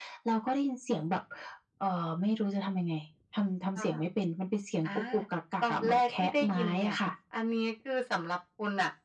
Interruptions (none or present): present